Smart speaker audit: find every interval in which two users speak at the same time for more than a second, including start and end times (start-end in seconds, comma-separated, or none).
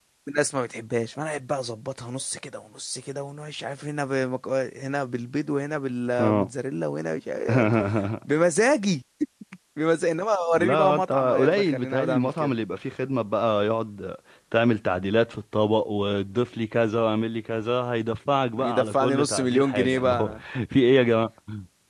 10.6-12.5, 18.6-20.3